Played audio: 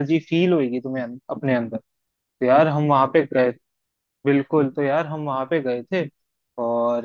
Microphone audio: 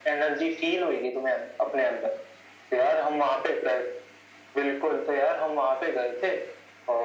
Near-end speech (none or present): none